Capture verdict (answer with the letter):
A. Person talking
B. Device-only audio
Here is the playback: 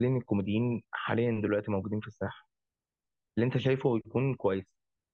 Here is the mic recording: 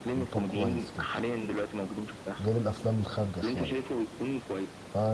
A